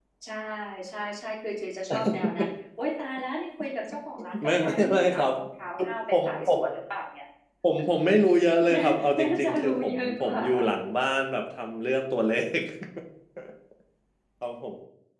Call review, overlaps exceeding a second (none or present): present